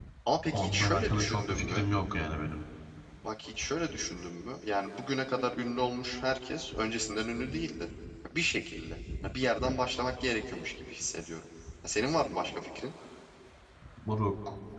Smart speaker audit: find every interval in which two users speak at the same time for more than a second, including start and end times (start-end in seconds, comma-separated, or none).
0.5-1.9